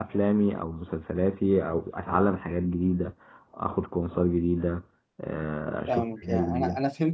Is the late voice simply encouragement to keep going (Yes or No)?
No